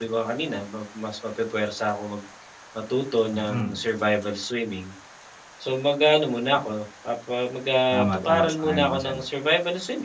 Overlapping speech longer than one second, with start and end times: 7.9-9.2

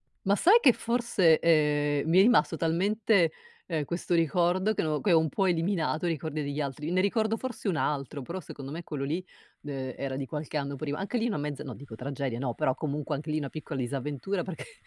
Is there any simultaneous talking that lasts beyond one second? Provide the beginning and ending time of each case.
none

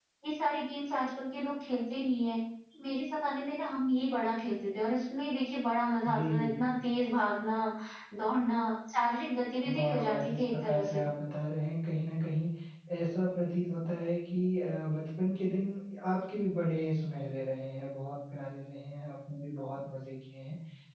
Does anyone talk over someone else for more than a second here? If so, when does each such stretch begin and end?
9.6-11.0

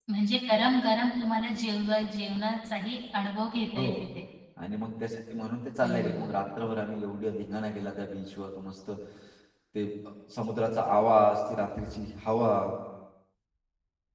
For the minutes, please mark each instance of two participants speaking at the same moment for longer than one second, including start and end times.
none

